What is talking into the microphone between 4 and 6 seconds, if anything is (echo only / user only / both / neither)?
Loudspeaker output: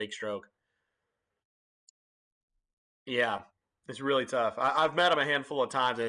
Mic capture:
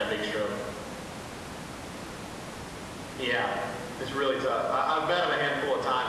echo only